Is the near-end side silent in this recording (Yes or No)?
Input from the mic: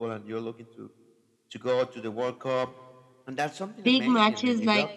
No